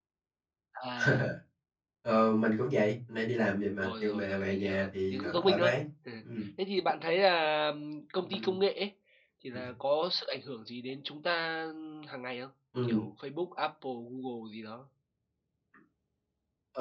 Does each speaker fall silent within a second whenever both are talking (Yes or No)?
No